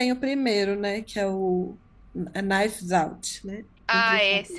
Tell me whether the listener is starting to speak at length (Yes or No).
Yes